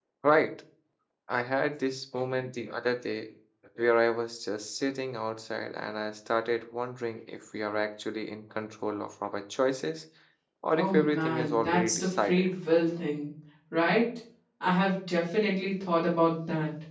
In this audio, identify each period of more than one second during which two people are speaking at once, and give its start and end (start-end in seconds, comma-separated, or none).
10.8-12.5